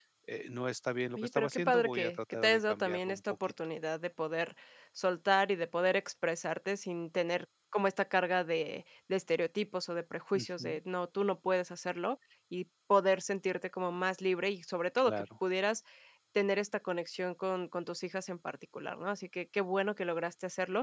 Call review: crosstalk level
present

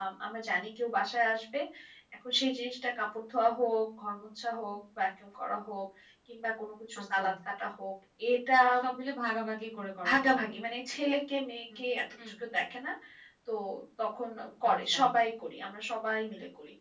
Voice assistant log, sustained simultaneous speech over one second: none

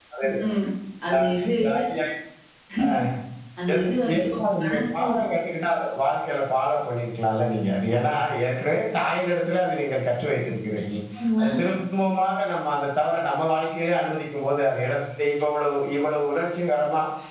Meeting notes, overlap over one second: present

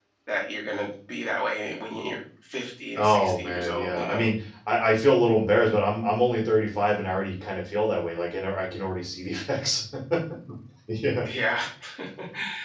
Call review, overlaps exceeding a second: present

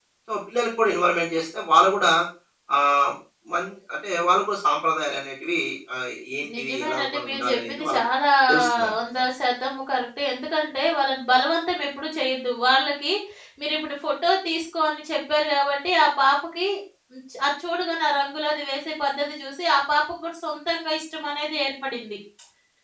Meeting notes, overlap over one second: present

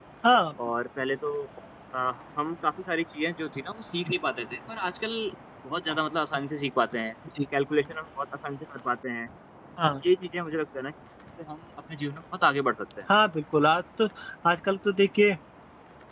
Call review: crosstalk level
none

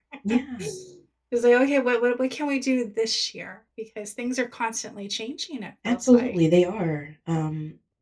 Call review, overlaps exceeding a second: none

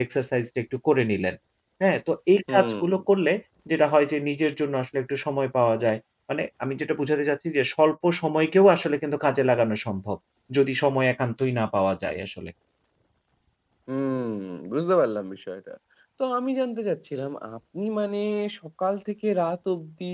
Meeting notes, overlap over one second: none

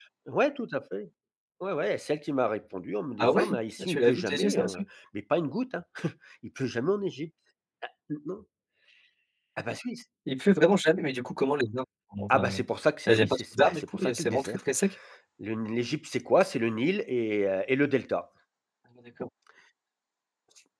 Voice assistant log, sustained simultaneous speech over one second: present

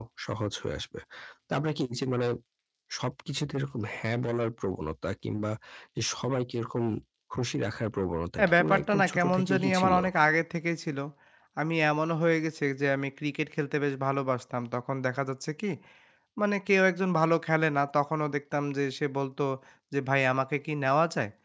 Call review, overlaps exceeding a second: present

